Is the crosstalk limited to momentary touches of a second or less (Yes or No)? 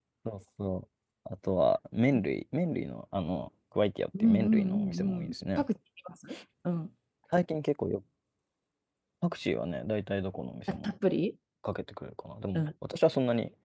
No